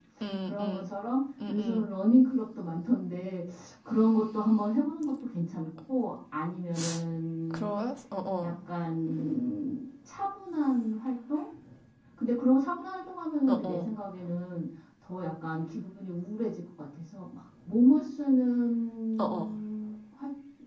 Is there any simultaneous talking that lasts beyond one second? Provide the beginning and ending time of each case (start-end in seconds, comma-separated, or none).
none